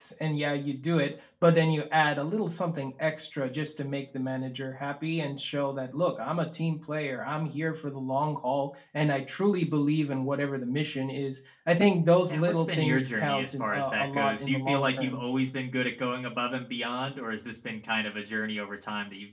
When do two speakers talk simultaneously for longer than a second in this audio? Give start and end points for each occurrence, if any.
12.3-15.2

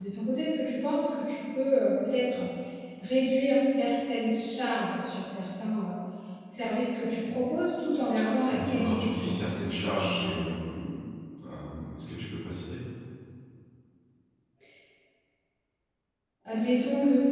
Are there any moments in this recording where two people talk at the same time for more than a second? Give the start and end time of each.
8.5-10.4

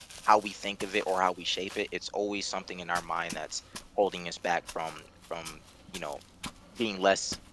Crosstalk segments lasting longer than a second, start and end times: none

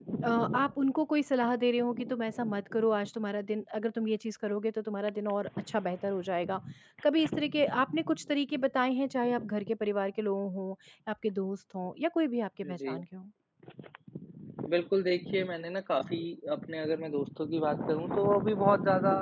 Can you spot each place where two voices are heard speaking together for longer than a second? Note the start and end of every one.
none

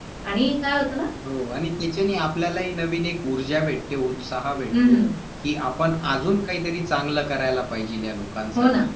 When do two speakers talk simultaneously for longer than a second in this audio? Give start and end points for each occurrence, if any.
none

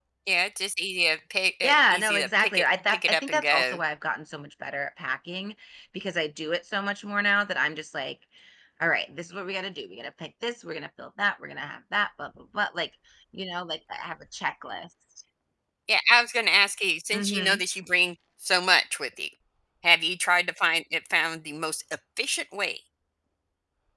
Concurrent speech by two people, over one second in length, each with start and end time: 1.6-3.8

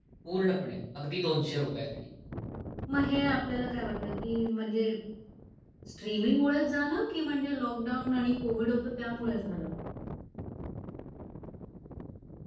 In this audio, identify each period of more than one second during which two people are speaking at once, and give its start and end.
none

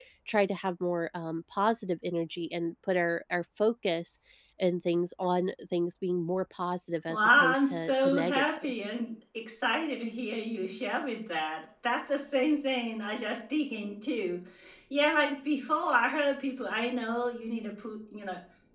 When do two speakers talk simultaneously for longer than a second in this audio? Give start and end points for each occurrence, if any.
7.1-8.7

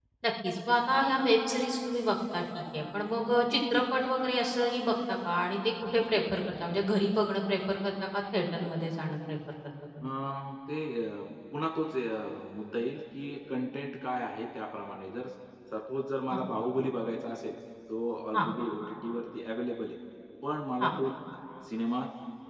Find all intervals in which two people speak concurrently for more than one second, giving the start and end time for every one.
none

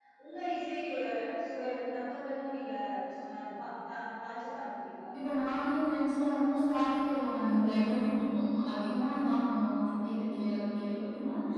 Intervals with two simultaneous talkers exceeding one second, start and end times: none

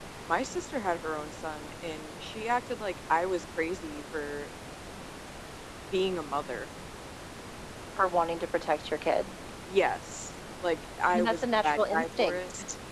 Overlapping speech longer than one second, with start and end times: 11.1-12.4

